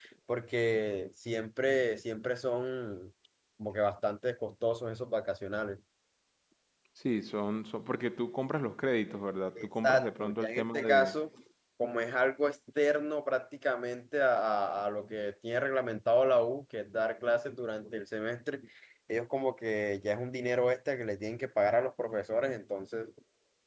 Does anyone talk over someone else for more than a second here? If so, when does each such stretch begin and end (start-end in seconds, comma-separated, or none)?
9.5-11.2